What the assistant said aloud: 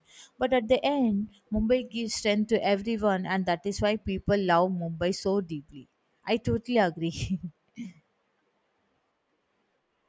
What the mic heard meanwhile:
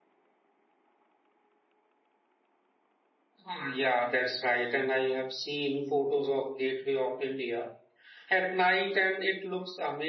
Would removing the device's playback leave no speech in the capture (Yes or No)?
No